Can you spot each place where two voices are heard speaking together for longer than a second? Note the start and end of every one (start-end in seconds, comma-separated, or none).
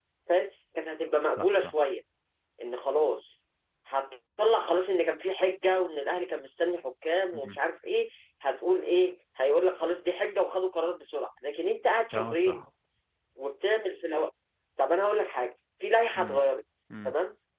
none